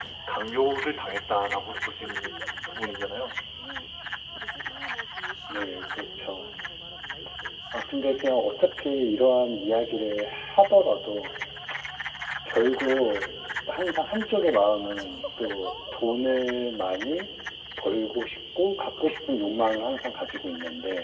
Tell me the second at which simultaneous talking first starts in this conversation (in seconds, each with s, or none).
none